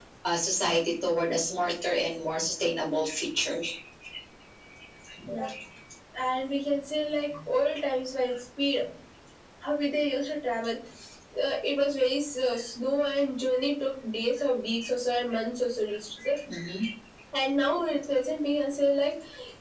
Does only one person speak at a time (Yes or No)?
Yes